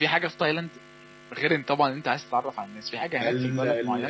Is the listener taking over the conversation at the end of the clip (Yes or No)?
Yes